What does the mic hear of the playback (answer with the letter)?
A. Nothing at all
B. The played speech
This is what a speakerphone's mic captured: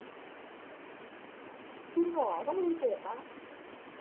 A